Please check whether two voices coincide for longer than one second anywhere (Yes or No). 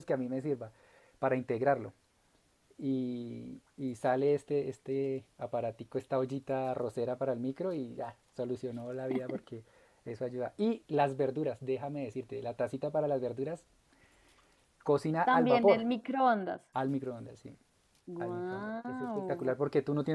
Yes